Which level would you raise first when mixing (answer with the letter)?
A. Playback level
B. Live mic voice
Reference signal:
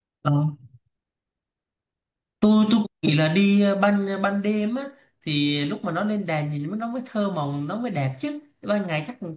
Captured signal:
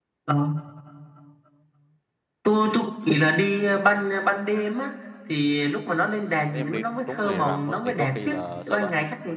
B